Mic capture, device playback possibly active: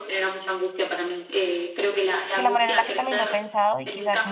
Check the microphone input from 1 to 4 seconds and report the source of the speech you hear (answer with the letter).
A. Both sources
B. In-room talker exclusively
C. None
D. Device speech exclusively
A